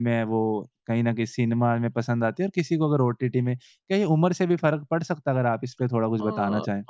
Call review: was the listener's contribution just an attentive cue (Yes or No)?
No